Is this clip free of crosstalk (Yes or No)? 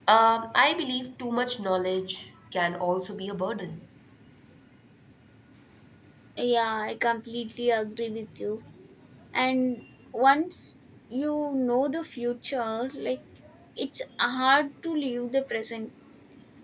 Yes